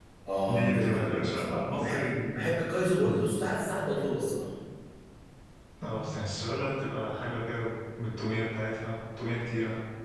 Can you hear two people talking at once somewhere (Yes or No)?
Yes